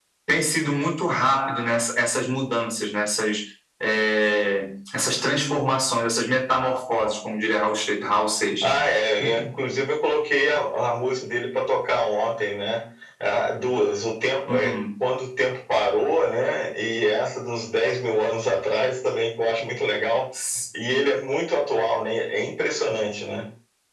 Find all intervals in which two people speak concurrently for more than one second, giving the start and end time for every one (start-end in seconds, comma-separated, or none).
none